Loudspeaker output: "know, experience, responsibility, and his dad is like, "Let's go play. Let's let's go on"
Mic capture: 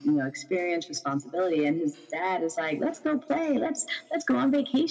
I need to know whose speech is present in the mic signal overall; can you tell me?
echo only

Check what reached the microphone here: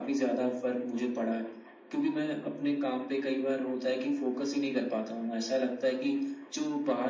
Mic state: echo only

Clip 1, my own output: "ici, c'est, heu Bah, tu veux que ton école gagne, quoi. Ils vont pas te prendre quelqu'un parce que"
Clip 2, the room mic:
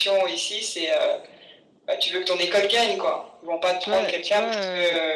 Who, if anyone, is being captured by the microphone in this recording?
both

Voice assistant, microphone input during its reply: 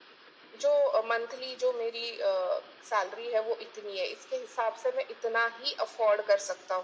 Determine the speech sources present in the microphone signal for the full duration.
echo only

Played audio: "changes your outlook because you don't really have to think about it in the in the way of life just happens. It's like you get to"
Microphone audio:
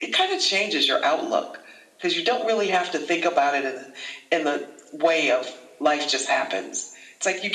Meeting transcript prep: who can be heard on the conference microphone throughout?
echo only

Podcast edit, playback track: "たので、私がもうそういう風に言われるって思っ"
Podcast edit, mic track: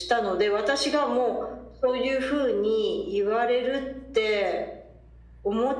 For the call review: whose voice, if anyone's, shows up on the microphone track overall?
echo only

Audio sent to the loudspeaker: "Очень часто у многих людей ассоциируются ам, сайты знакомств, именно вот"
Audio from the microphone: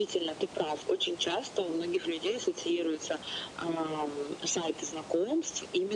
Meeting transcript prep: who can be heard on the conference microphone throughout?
echo only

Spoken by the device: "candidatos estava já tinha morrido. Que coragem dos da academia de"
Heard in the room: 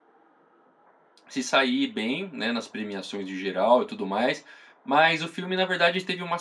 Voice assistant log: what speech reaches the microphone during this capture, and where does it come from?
user only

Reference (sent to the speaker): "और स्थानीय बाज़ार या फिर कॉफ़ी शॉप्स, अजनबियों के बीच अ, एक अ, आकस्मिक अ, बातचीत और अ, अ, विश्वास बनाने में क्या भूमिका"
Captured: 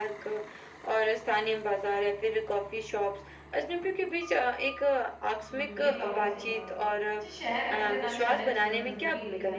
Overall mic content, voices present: both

